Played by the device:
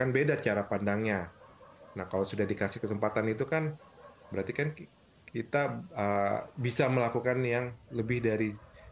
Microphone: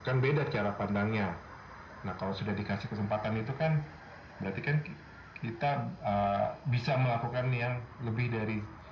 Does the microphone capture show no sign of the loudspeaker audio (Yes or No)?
No